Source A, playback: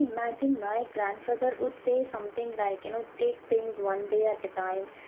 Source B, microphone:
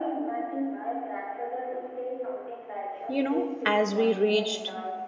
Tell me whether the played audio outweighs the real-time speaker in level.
No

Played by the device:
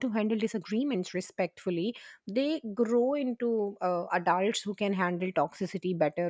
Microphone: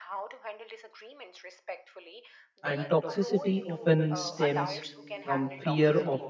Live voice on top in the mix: Yes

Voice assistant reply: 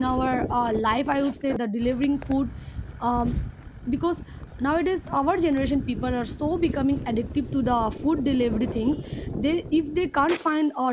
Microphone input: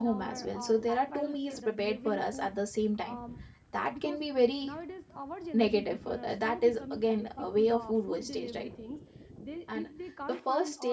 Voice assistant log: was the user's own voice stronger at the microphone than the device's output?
Yes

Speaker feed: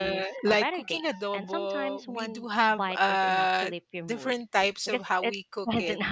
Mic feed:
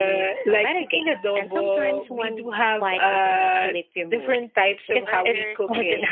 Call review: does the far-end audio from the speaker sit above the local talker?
Yes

